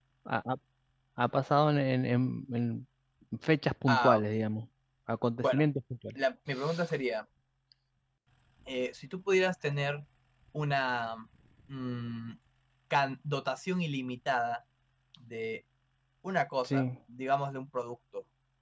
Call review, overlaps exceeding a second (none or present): none